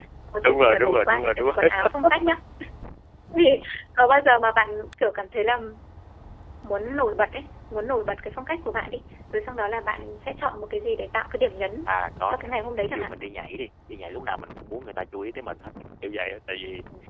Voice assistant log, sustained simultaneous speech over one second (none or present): present